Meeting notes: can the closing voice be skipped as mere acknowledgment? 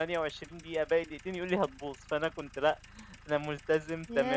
No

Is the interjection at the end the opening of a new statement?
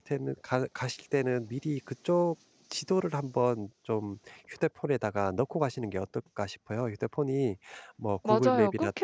Yes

